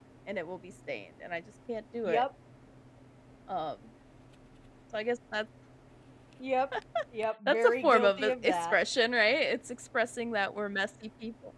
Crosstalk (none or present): present